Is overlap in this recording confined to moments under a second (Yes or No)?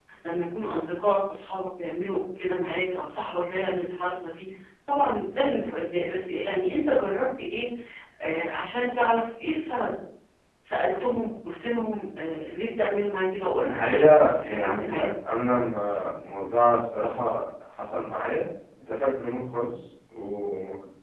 No